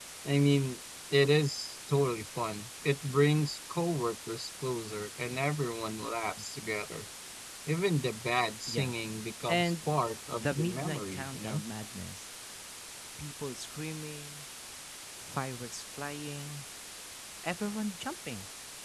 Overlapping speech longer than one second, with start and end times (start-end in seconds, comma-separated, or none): 10.3-11.6